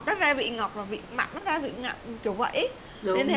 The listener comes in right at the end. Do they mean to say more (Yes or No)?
No